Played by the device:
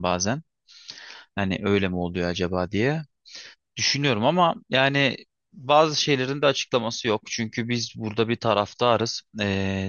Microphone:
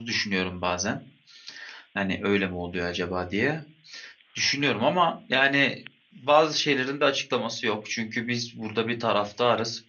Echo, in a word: present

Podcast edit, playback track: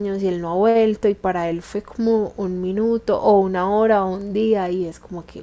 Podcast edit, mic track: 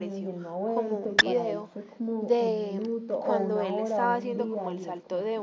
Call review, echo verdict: present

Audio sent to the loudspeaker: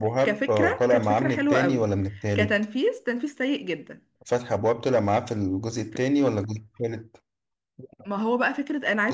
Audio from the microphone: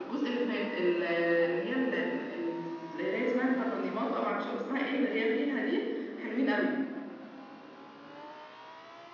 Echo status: none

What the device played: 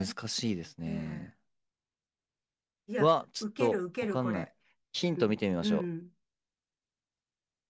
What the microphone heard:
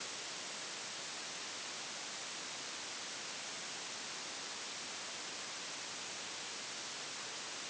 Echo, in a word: none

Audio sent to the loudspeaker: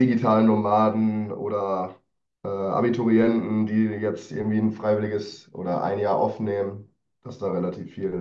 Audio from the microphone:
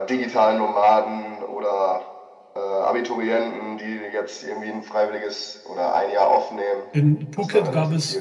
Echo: present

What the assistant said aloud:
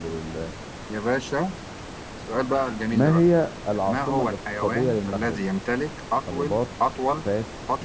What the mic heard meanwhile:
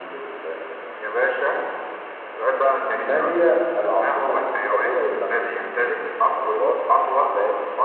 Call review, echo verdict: present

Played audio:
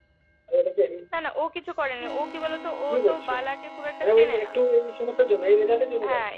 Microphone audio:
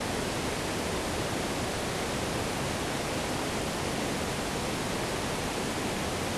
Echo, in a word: none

